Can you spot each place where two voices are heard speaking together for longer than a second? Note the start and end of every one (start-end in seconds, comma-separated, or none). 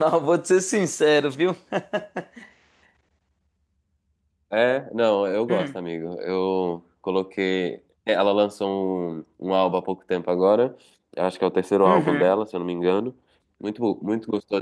none